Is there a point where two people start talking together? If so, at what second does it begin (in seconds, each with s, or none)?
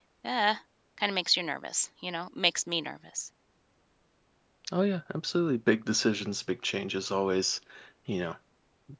none